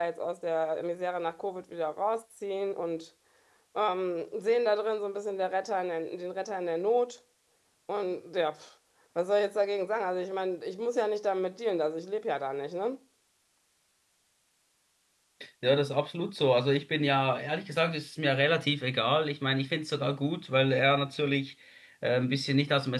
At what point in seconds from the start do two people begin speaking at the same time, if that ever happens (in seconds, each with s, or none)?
none